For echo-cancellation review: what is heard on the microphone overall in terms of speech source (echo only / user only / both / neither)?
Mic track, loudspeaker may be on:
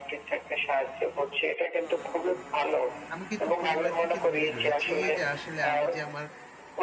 both